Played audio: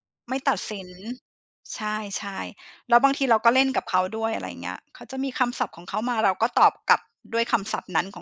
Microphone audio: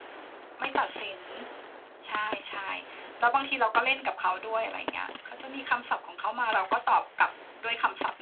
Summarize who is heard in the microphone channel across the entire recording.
echo only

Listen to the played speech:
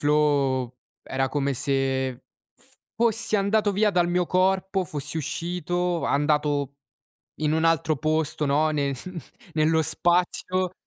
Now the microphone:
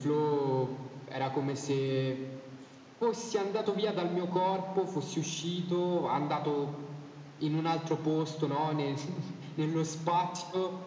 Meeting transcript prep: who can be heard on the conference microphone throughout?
echo only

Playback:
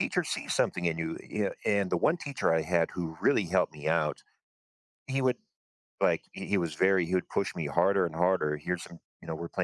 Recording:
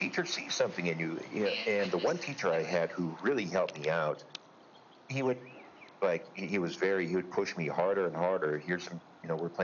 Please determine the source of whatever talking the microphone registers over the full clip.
both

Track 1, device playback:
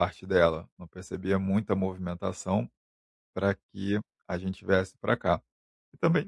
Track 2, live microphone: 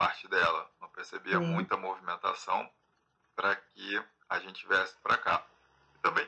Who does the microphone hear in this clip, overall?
both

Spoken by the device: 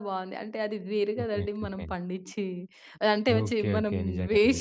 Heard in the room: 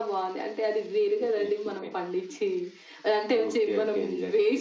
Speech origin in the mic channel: echo only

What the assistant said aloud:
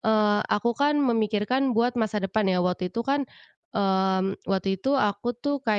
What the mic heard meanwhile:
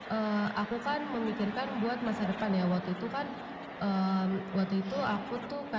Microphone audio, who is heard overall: echo only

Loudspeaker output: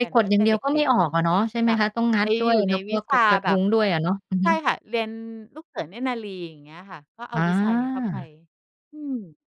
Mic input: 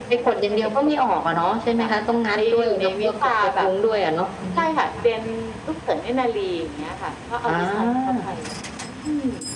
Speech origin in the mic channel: echo only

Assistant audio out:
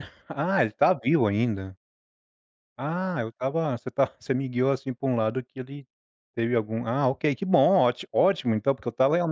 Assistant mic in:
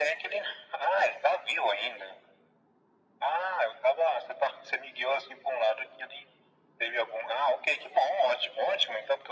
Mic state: echo only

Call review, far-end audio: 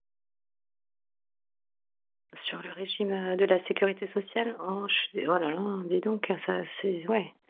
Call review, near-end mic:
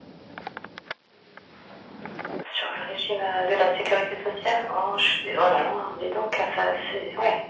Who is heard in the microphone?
echo only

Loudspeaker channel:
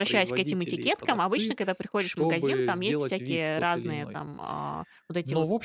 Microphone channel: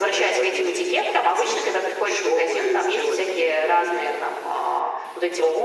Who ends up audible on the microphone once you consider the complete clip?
echo only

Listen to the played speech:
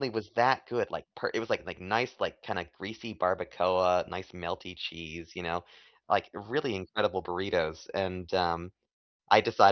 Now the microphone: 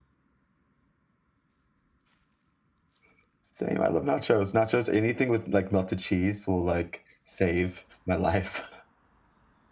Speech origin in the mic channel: user only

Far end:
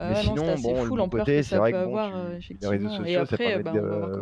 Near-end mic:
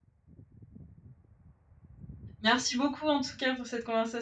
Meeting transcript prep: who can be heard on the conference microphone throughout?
user only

